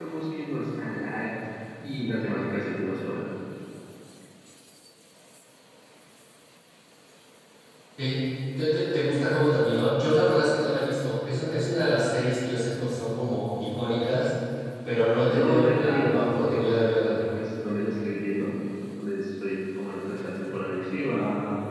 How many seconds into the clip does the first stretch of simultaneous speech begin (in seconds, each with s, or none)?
15.3 s